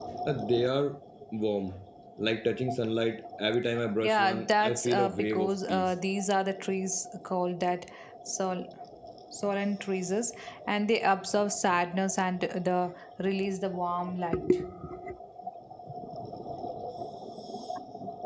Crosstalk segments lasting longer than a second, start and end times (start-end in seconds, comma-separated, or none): 4.0-5.9